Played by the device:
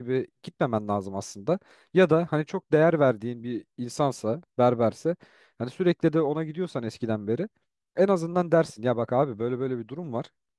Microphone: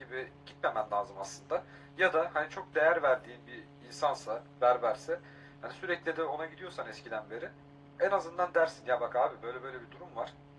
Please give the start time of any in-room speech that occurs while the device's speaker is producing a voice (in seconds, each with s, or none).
none